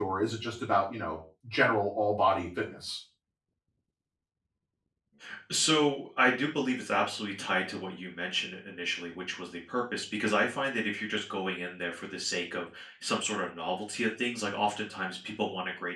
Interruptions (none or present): none